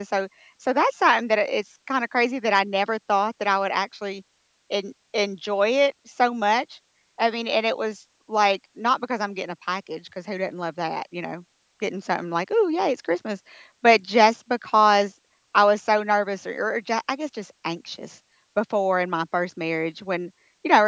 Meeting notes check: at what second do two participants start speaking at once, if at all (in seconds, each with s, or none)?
none